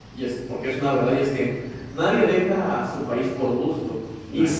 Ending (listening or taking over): listening